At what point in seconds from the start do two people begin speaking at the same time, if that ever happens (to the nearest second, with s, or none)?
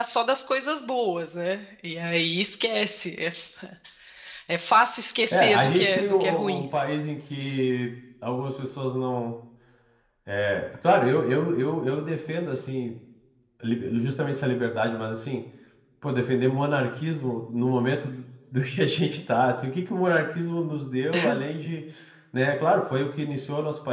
5 s